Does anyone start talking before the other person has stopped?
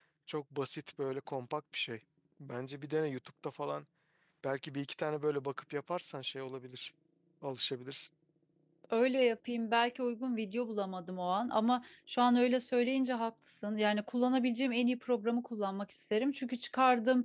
No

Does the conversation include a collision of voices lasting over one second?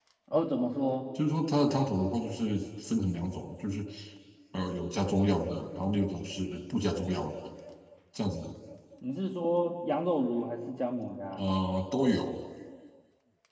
No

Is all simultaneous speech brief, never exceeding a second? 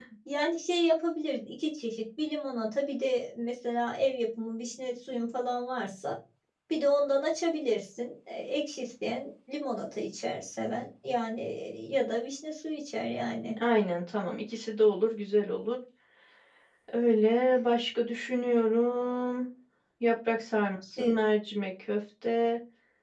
Yes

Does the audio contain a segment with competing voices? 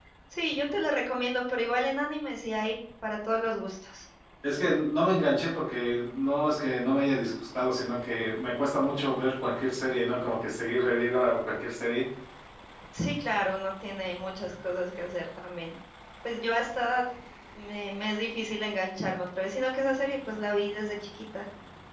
No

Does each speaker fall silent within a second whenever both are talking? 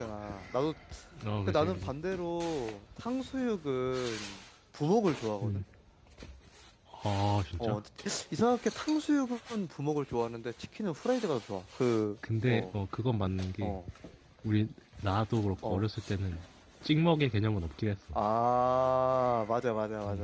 Yes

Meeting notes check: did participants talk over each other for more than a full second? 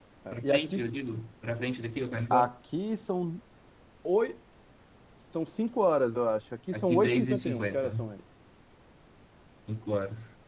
Yes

